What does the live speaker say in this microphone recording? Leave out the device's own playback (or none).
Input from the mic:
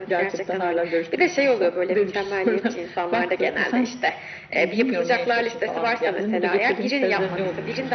none